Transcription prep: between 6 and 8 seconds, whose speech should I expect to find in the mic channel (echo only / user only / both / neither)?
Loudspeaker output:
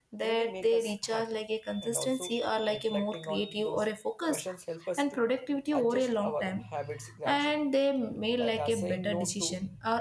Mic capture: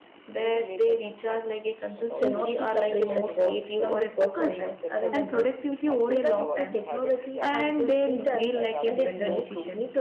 both